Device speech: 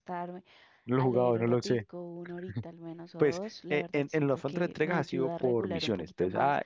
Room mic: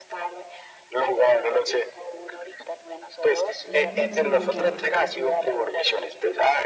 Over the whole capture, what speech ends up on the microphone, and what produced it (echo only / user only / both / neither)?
both